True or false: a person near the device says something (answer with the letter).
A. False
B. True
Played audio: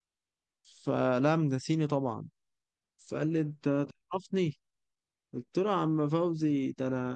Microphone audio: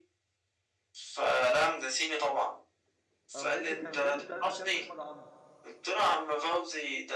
B